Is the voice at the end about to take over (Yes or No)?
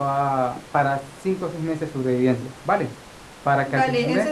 Yes